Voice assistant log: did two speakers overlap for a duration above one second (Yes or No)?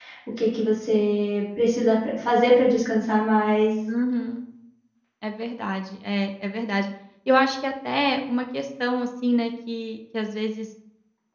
No